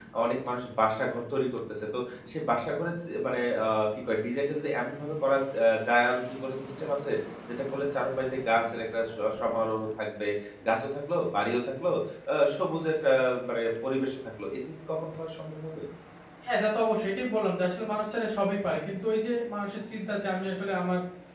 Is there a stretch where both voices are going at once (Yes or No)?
No